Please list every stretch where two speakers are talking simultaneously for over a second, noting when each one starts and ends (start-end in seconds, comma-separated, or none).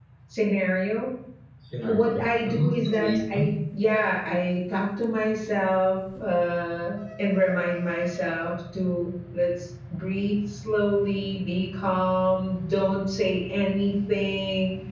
1.9-3.4